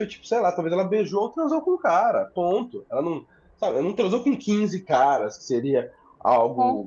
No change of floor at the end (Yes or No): Yes